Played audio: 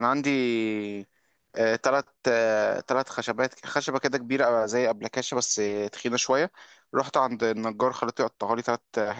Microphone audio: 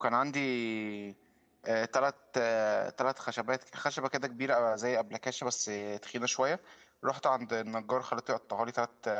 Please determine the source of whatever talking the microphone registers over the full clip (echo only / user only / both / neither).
echo only